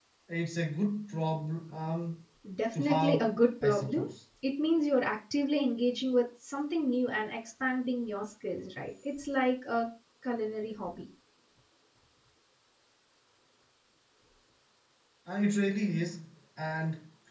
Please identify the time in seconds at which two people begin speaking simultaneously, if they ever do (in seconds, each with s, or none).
2.8 s